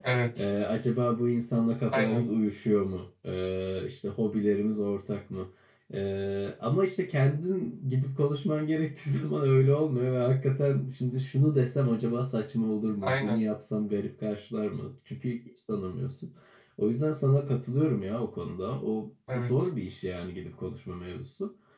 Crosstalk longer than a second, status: none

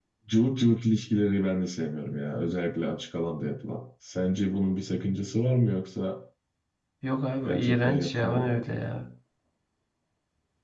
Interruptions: present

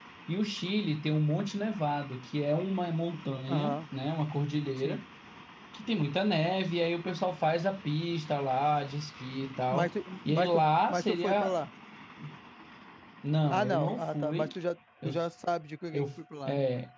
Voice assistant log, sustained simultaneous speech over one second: present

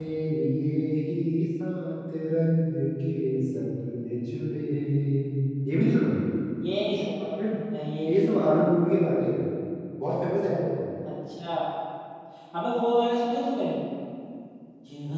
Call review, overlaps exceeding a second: none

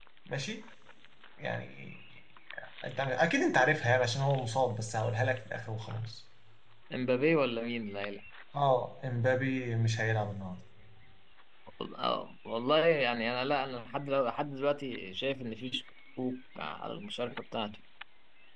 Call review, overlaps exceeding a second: none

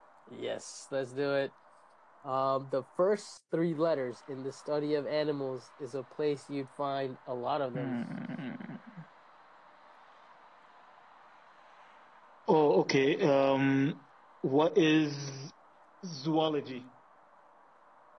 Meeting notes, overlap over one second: none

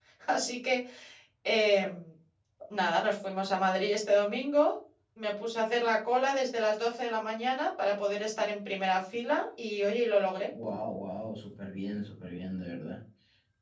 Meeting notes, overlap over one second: none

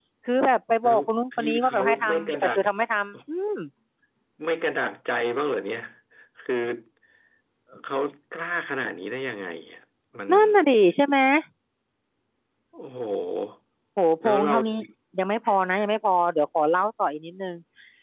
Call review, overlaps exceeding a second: present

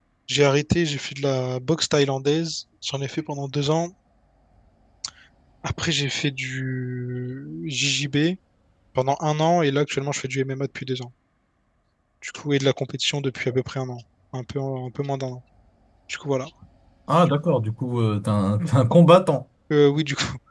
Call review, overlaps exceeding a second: none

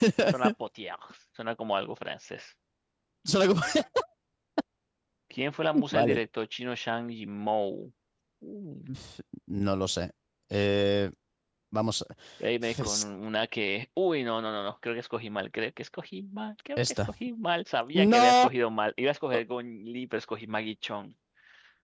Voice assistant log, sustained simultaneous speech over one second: none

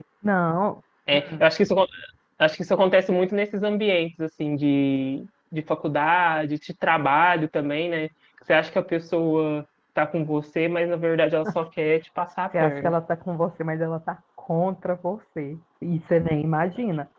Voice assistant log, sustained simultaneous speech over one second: none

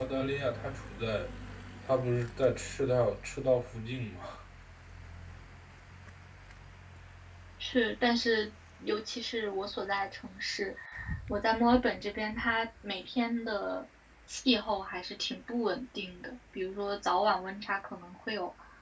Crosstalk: none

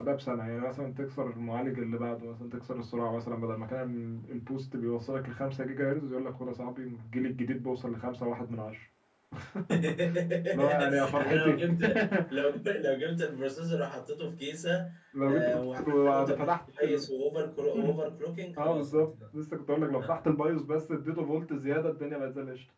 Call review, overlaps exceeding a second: present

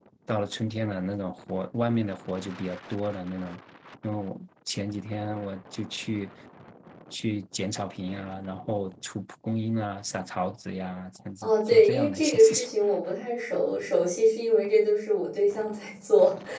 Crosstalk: present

